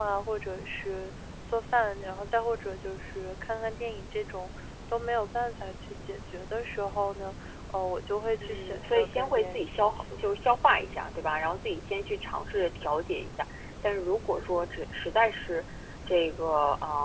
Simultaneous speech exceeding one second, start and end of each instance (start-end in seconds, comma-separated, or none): 8.4-10.2